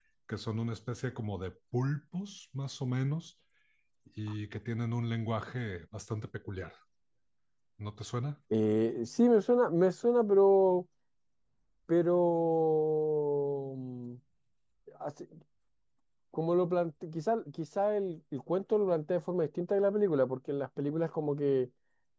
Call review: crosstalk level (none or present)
none